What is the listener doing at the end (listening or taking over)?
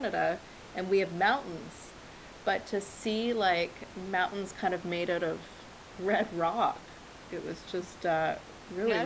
taking over